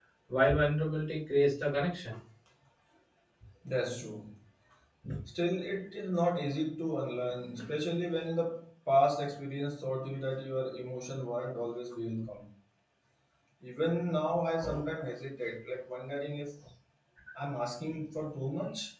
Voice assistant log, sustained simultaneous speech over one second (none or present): none